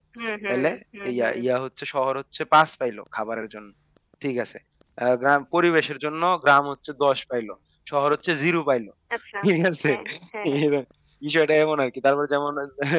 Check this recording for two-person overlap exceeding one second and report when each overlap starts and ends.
none

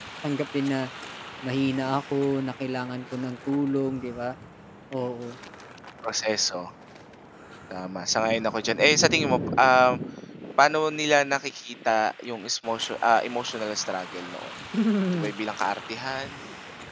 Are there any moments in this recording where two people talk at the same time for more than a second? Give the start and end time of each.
none

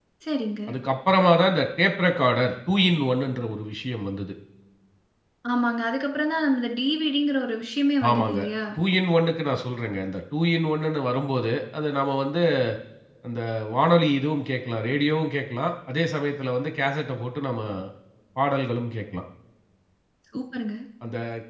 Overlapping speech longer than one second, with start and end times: none

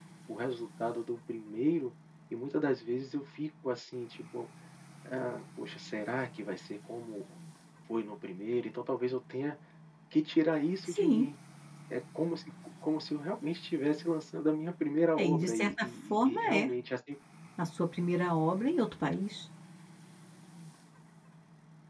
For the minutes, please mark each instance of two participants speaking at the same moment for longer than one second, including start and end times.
15.2-16.7

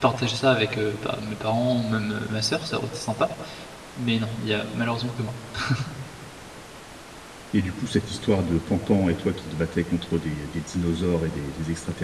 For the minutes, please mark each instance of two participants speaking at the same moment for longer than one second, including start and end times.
none

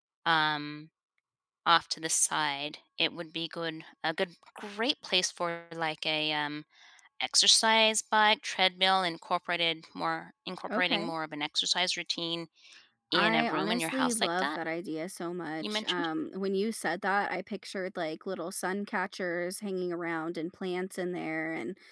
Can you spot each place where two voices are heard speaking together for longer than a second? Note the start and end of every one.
13.1-14.6

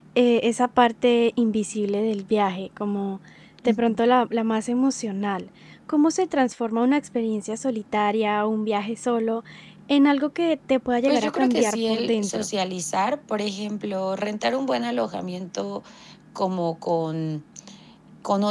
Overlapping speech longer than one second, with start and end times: 11.0-12.5

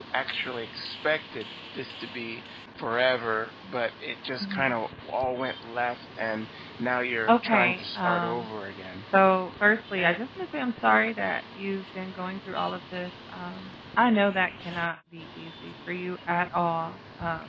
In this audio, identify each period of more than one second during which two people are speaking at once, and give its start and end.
7.3-8.5

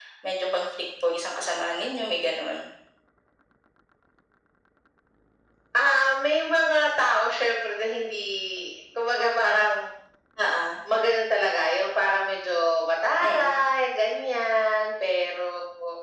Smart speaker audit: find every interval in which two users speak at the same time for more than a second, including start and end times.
none

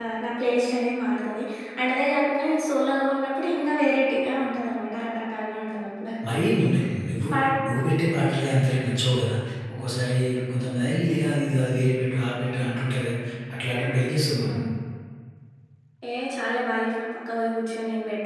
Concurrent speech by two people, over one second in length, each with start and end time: none

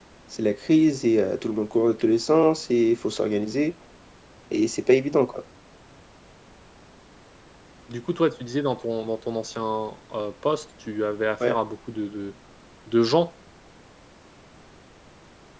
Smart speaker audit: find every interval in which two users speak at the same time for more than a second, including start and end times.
none

